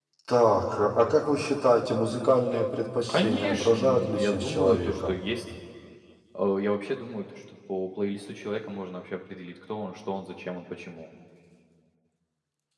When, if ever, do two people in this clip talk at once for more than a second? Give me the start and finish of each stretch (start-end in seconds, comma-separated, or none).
3.1-5.2